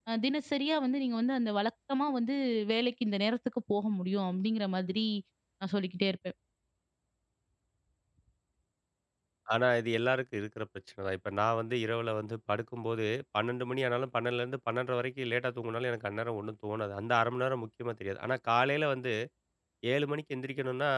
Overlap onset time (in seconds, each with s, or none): none